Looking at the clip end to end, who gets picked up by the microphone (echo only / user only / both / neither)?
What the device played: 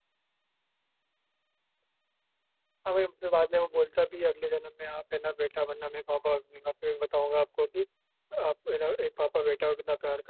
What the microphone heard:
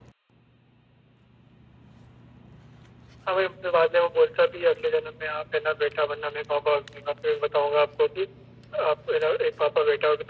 echo only